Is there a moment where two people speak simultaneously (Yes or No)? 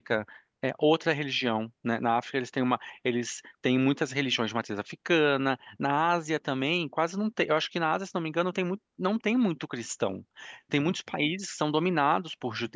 No